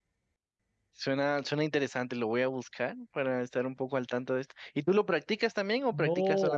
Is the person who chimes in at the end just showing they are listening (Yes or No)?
No